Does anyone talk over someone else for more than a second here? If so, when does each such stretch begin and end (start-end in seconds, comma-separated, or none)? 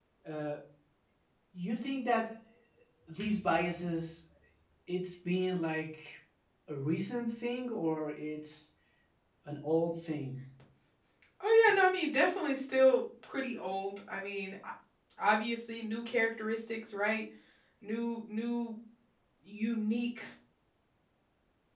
none